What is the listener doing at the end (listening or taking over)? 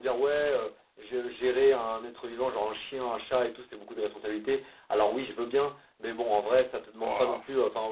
listening